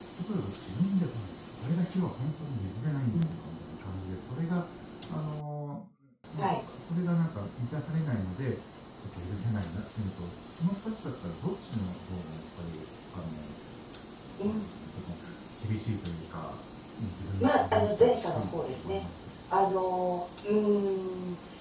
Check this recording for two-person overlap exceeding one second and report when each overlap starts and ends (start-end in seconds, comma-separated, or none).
17.4-19.0